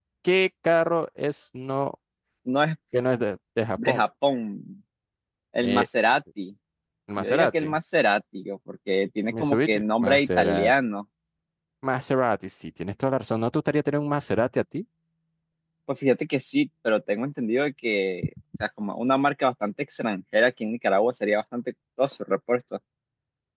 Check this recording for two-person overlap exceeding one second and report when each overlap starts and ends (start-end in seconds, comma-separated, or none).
9.4-10.7